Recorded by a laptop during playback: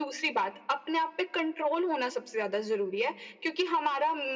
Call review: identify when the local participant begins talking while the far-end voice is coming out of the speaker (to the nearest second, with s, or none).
none